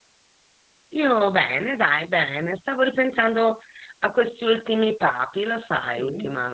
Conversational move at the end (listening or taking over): taking over